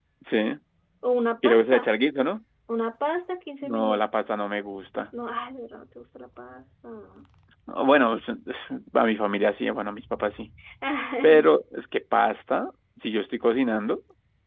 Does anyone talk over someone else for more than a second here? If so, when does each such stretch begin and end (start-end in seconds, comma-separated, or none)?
none